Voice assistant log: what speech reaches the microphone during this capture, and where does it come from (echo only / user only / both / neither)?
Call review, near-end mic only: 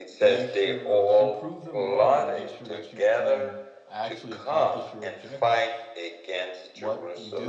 both